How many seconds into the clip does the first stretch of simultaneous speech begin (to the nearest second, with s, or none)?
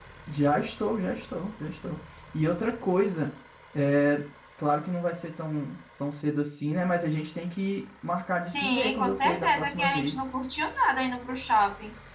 8 s